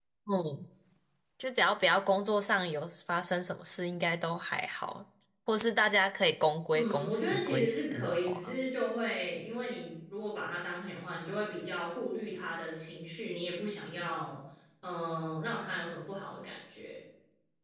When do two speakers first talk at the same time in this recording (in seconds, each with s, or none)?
6.7 s